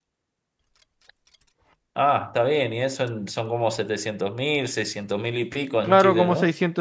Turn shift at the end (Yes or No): Yes